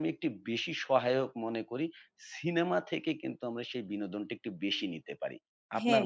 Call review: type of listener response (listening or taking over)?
taking over